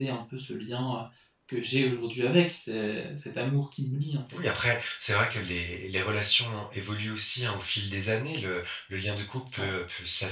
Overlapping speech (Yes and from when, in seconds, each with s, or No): No